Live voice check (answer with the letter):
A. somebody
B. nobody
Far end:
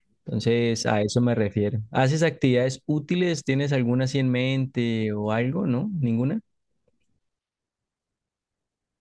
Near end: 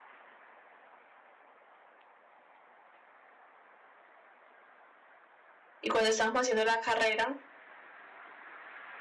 A